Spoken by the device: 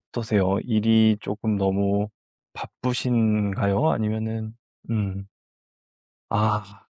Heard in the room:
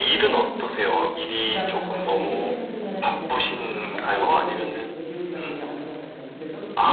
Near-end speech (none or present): present